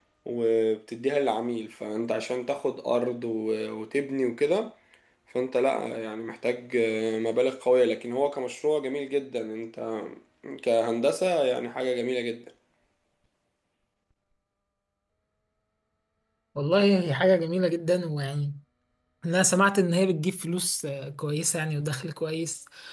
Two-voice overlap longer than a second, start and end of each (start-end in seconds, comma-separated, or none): none